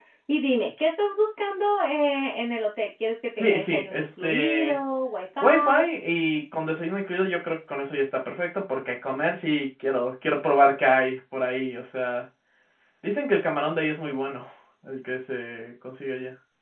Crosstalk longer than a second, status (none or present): present